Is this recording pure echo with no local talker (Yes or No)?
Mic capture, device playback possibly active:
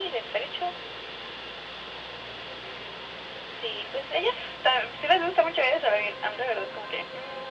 Yes